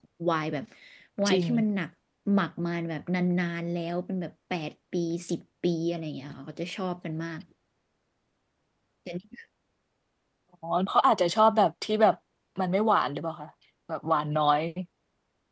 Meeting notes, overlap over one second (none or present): none